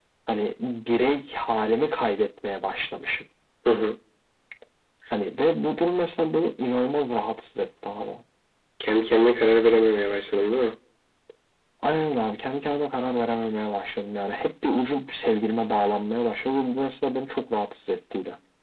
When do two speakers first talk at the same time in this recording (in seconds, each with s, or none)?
none